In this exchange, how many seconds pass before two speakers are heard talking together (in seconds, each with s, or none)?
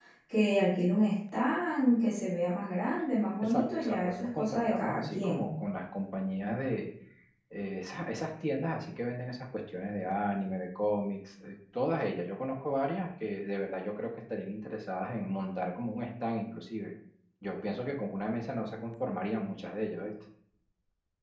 3.4 s